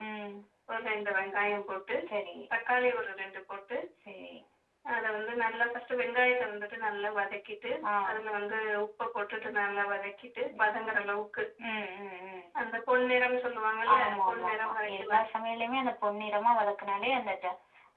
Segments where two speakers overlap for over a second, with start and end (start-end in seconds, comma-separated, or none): 14.0-15.2